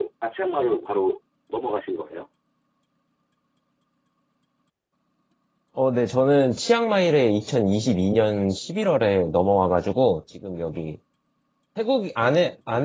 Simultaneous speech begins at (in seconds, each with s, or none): none